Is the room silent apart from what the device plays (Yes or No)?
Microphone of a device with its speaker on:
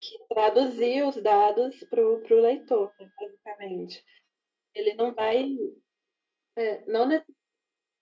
Yes